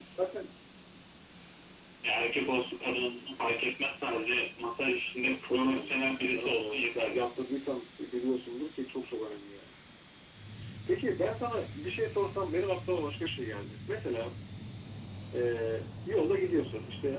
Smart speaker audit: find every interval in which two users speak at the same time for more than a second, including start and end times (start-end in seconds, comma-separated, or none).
5.2-7.2